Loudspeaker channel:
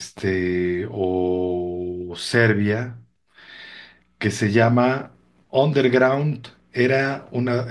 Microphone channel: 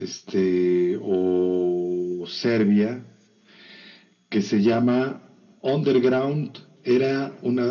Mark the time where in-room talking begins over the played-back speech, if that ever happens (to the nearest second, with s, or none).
none